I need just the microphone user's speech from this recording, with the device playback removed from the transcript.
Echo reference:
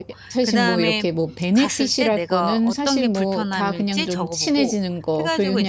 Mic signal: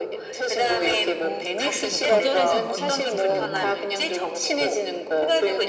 쪼끔 뭐 제 뭐 거절해서 느끼는 죄책감이나

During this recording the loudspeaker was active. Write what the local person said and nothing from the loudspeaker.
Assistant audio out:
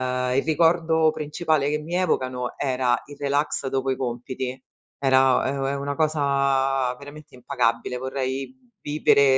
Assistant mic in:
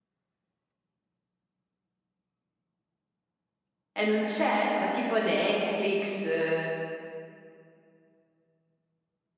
E non c'è? Ma tipo Netflix, ehm,

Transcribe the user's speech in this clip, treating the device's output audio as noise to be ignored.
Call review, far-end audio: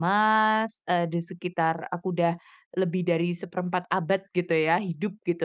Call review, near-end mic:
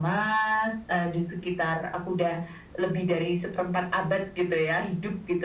none

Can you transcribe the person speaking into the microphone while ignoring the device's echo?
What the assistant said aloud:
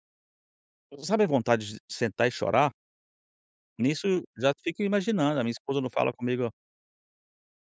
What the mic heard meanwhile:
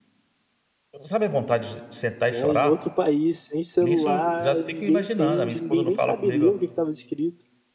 né, em outro país, sem celular, ninguém entende, ninguém nem sabe ler o que que estava escrito.

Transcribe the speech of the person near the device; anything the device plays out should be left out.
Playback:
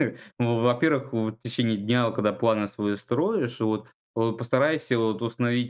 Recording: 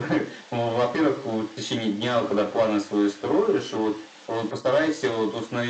none

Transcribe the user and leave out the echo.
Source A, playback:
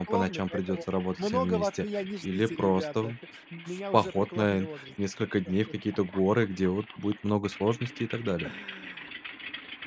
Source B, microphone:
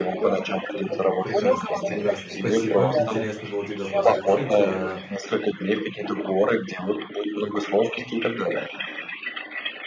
М. Прекрасно прекрасно, спасибо, интересно было тебя послушать, а,

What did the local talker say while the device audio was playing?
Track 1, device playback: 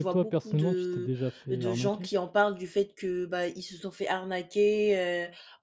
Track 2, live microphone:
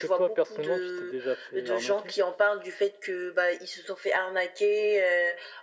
none

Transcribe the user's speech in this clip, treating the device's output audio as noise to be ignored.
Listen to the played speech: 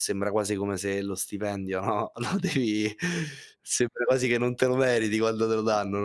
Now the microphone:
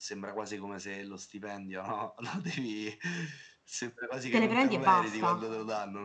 Te le prendi e basta.

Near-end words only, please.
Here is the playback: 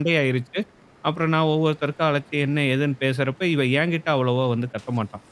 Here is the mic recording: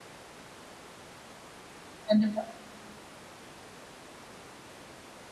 கண்டிப்பா.

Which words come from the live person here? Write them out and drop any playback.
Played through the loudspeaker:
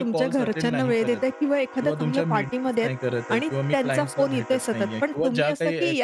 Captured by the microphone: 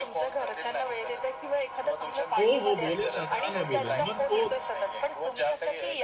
हो, हो. बोलेल ना का नाही बोलेल? मग तो

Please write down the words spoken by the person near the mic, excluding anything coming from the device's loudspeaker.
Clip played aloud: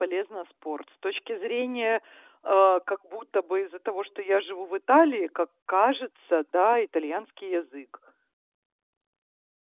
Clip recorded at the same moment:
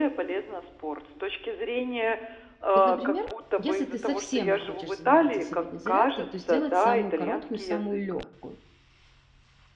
Вот, например, если ты совсем не хочешь заниматься сегодня зарядкой, то сделать самую короткую и самую легкую.

